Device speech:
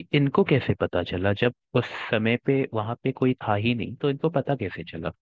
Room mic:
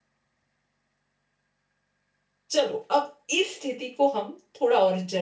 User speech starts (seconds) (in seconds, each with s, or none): 2.5 s